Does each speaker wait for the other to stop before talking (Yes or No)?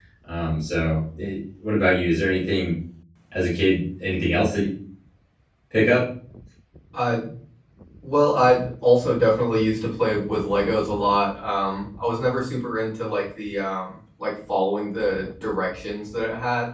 Yes